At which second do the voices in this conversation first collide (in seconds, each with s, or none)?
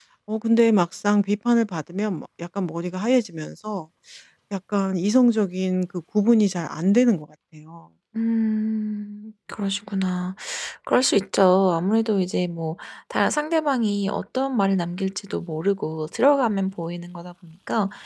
none